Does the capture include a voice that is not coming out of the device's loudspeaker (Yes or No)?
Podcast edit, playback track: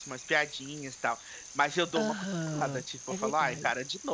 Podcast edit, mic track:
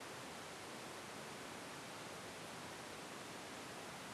No